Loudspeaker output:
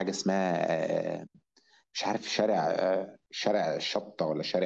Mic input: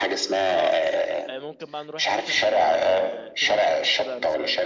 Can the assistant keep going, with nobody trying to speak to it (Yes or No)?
No